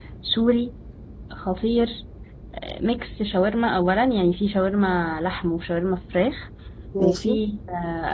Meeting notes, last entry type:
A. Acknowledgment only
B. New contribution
A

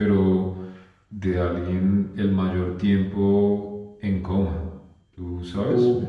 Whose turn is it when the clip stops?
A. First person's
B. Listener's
B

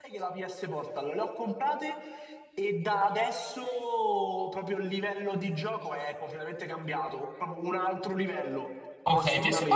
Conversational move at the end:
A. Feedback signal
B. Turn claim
B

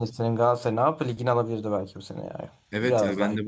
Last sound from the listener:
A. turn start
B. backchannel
A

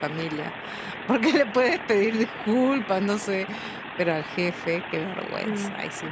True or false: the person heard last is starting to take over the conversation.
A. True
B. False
A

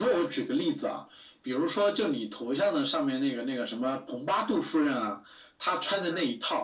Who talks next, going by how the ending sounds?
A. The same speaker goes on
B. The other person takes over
A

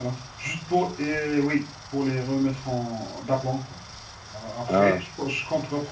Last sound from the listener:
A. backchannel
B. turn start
A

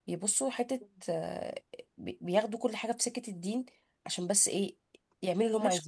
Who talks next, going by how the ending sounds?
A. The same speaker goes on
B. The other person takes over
B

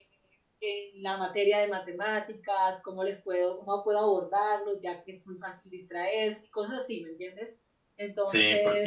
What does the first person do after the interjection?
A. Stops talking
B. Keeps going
A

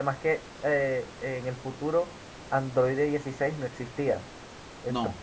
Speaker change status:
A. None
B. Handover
A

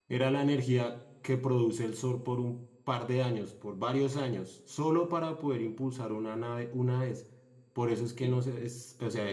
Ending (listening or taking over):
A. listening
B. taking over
A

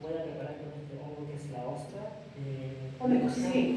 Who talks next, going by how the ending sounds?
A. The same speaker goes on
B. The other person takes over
A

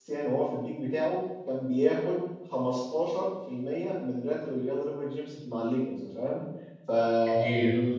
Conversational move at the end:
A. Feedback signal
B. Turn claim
A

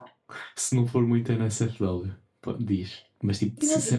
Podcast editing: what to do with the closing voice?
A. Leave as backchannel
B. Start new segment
A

